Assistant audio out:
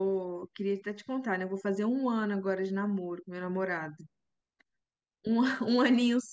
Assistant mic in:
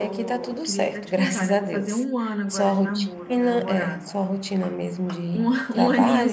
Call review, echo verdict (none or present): present